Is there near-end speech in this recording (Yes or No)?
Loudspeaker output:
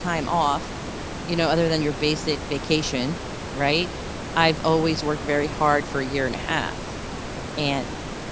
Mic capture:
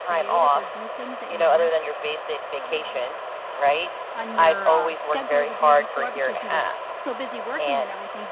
Yes